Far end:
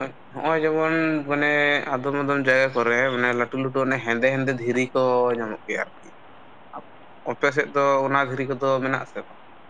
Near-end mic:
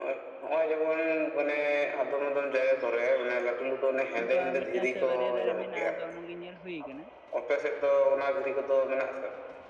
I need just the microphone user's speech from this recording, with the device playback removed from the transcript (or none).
ᱚᱝᱠᱟ ᱢᱤᱫᱴᱟᱝ ᱥᱮ ᱵᱟᱨᱭᱟ ᱫᱟᱨᱮ ᱢᱮᱱᱟᱜᱼᱟ᱾ ᱟᱫᱚ ᱚᱱᱟ ᱜᱮ ᱧᱮᱞ ᱦᱳᱭ ᱠᱟᱱᱟ᱾